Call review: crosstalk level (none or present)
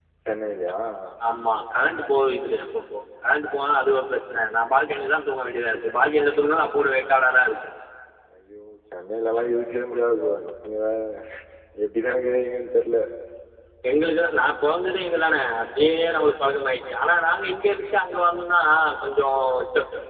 none